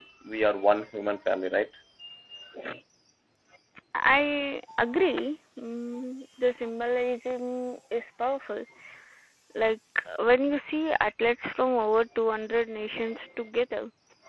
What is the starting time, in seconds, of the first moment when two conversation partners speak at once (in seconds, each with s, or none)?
none